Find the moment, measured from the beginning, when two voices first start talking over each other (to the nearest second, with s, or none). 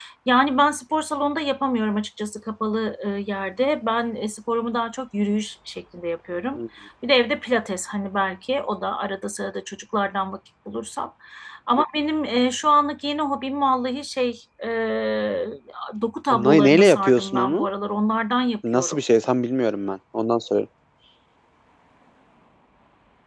16 s